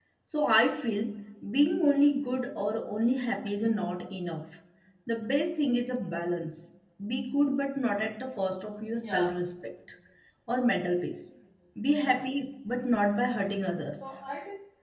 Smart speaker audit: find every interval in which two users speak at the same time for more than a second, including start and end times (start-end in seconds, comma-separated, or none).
none